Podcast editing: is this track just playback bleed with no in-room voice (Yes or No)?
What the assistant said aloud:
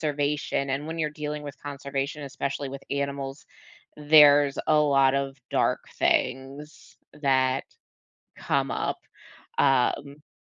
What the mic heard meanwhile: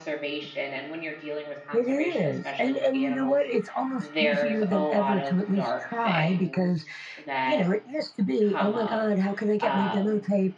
No